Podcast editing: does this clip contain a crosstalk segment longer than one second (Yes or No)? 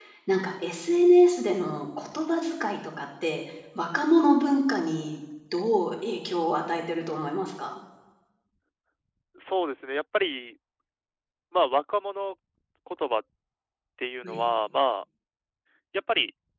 No